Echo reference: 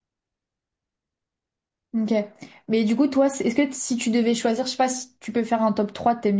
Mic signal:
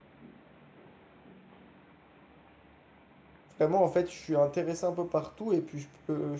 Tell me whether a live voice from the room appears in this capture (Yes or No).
Yes